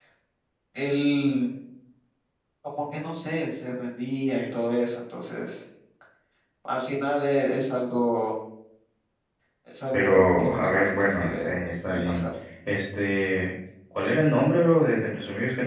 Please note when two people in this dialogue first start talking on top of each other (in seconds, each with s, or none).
9.9 s